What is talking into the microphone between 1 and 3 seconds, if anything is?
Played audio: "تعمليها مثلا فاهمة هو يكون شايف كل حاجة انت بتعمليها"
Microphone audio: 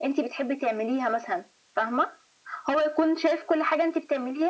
echo only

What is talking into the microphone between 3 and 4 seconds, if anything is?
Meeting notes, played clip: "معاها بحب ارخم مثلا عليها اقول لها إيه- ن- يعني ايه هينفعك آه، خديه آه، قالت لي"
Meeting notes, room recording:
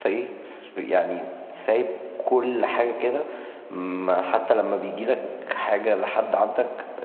user only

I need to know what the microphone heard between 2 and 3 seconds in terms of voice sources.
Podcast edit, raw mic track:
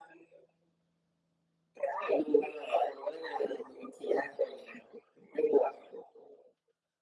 echo only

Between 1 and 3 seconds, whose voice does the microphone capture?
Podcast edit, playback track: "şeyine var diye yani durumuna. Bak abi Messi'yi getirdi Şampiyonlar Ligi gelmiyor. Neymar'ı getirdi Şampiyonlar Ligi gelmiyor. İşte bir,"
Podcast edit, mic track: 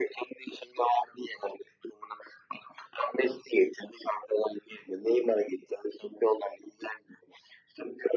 echo only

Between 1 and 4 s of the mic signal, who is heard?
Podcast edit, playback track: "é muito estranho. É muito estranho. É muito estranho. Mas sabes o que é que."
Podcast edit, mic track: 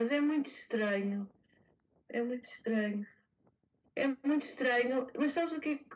echo only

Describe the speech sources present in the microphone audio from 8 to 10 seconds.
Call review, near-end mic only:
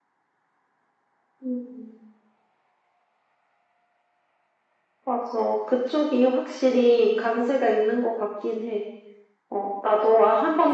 echo only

